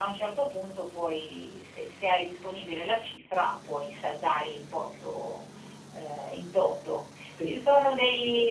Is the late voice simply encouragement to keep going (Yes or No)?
Yes